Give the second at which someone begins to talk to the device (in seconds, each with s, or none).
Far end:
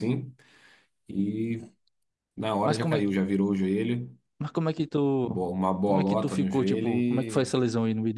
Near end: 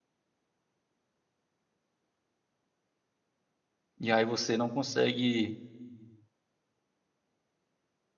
4.0 s